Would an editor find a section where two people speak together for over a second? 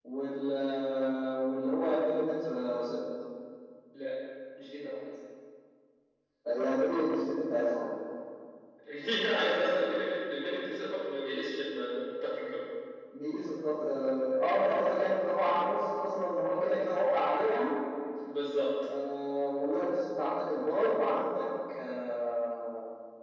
No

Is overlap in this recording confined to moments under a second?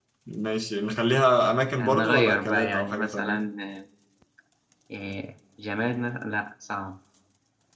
No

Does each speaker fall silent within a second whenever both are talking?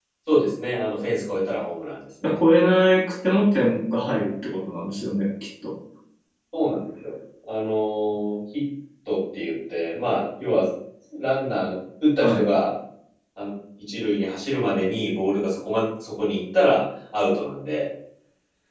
Yes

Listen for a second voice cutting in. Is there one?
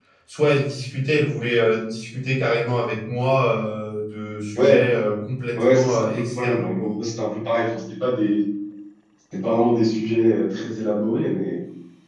Yes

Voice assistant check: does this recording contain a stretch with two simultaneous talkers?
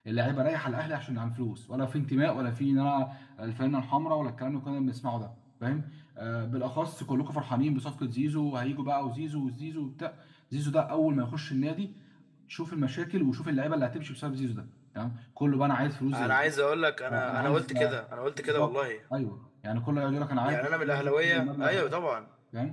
Yes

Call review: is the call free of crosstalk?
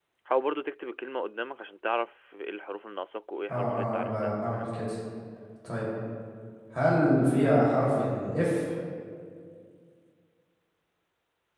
No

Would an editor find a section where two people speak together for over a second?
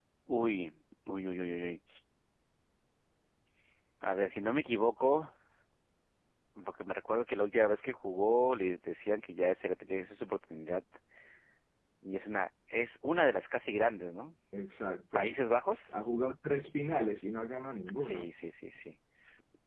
No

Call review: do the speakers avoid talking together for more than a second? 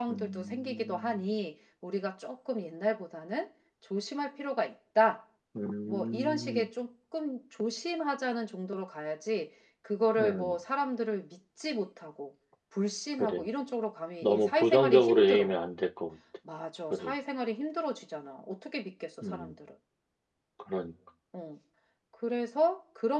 No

